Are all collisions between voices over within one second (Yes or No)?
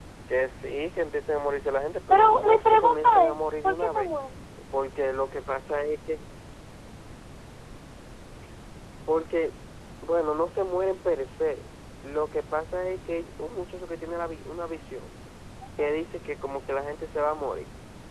No